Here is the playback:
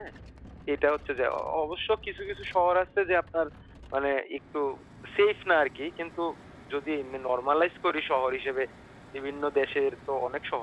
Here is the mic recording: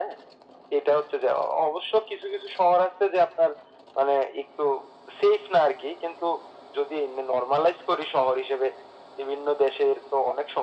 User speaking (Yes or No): No